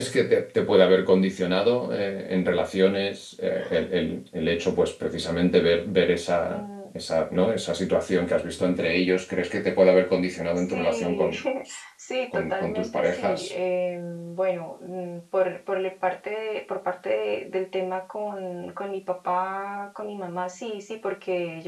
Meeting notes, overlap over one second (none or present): present